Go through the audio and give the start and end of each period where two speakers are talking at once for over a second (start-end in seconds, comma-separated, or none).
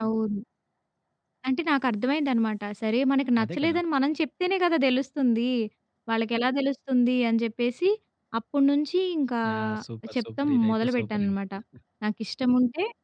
10.2-11.3